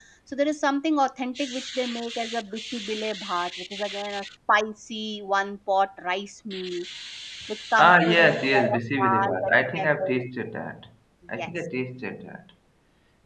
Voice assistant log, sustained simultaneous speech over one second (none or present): present